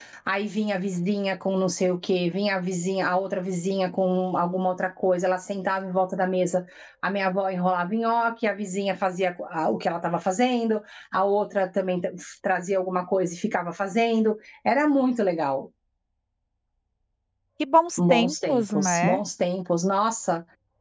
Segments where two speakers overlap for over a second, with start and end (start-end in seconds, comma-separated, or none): 18.0-19.2